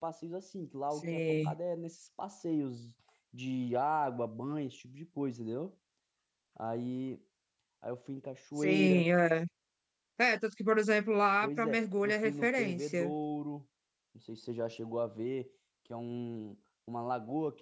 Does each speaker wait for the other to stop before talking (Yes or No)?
No